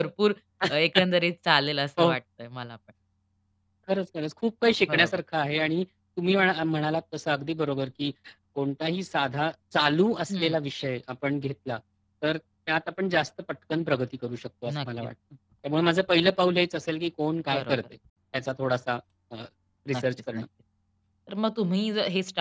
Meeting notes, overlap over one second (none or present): none